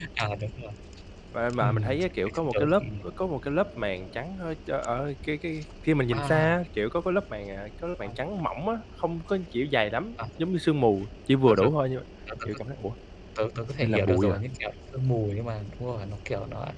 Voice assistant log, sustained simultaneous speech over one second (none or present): present